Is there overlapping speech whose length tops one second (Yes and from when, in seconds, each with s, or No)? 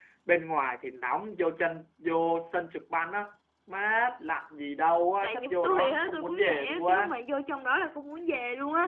Yes, from 5.2 s